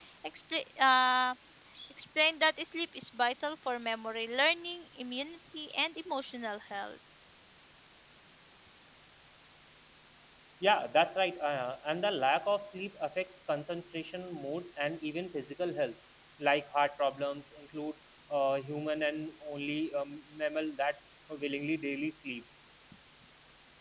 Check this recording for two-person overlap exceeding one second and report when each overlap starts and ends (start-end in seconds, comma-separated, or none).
none